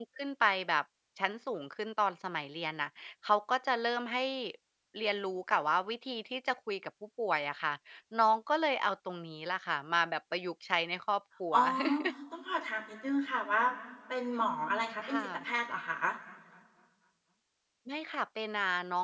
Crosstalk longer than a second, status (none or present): none